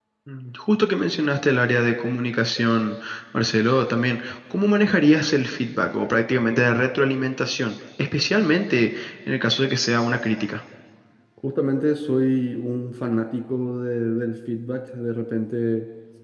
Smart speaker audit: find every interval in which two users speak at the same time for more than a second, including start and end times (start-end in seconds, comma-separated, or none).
none